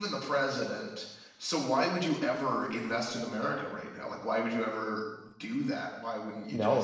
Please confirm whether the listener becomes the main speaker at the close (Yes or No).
Yes